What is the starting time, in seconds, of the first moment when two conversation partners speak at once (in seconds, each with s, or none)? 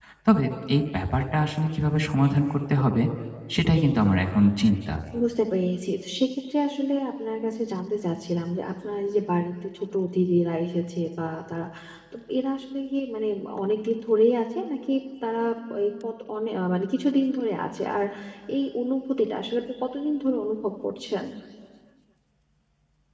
none